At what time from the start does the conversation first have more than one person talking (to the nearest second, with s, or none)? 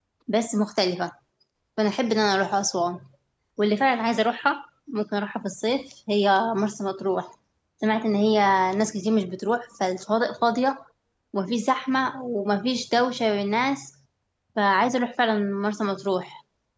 none